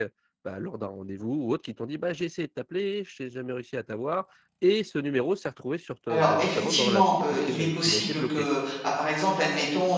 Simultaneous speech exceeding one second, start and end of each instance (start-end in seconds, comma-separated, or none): 6.1-8.5